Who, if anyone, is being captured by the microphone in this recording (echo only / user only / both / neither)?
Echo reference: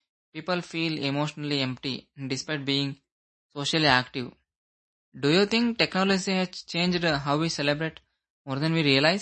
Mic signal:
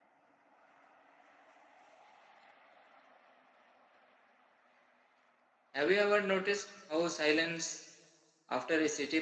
user only